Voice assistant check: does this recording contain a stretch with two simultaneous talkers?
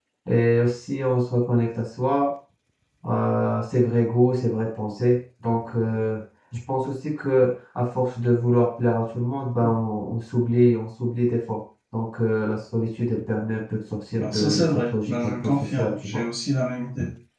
Yes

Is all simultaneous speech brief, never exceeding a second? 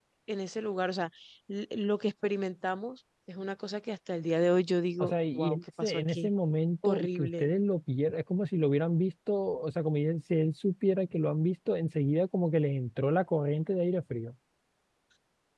No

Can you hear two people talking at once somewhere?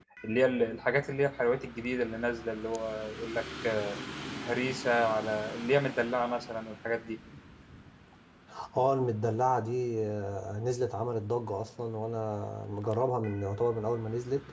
No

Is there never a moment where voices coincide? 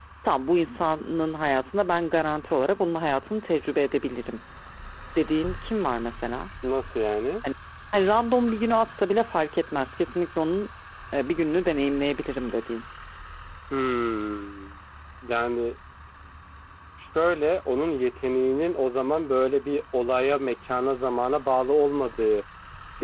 Yes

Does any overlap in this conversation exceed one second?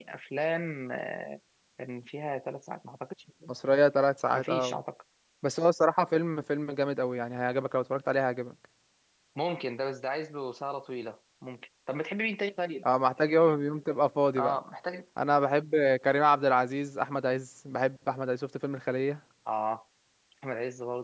No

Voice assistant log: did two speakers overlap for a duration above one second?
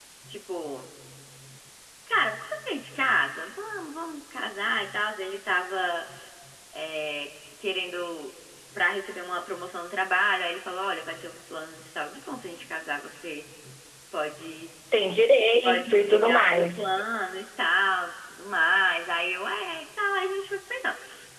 Yes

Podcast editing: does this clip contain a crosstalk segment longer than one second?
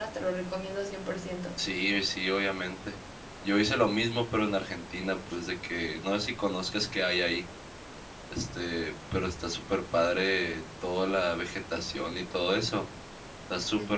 No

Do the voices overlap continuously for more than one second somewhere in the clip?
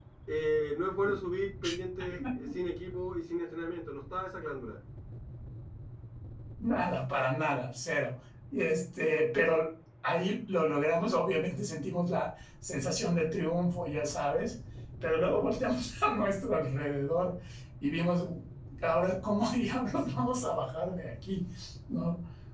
No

